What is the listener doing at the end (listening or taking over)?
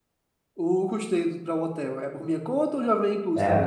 taking over